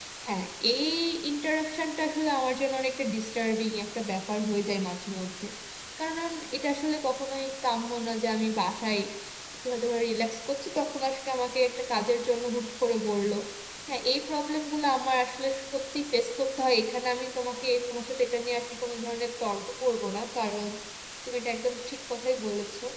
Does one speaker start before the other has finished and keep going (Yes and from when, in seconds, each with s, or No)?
No